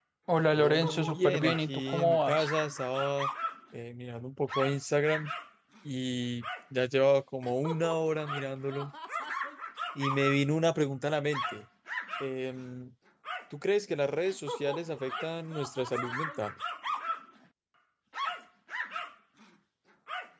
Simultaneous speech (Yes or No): Yes